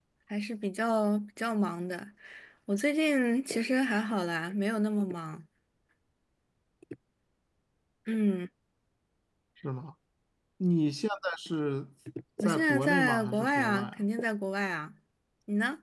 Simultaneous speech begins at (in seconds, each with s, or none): 12.4 s